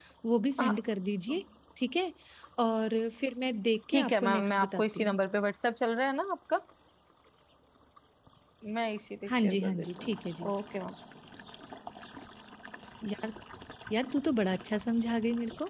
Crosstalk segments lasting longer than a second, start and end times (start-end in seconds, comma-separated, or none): 3.9-5.2, 9.3-10.5